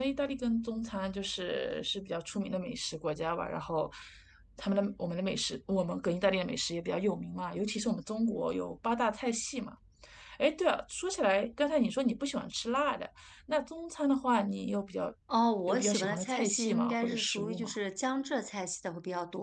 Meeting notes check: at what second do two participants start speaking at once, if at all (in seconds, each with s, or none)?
15.7 s